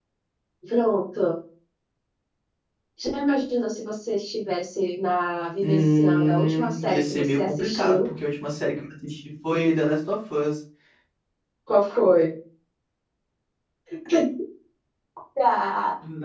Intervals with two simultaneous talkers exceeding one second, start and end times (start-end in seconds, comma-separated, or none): 5.6-8.1